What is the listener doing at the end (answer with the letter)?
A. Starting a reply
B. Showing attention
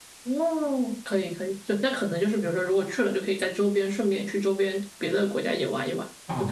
A